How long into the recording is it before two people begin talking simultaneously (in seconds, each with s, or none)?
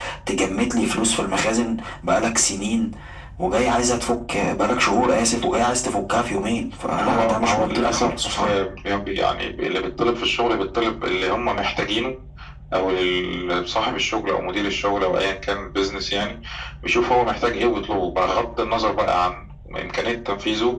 7.0 s